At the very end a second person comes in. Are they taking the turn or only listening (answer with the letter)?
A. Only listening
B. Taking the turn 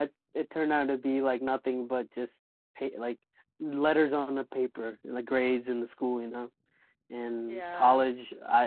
A